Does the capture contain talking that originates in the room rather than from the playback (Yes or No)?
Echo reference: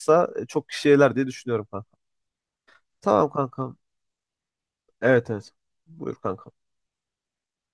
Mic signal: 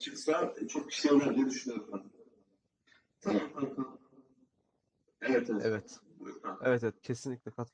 Yes